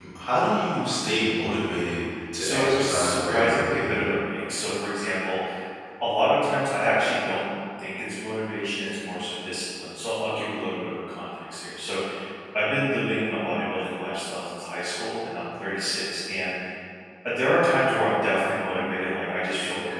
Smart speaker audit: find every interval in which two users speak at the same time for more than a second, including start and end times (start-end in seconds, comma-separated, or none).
2.4-3.9